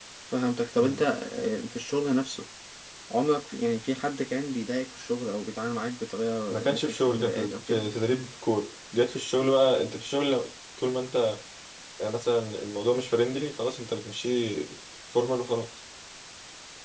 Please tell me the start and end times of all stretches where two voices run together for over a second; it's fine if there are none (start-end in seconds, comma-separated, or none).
6.5-7.9